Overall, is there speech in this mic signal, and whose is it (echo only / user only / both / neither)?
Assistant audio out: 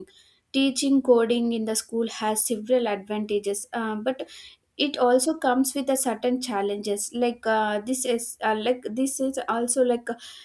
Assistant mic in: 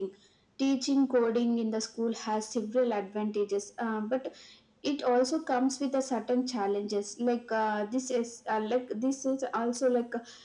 echo only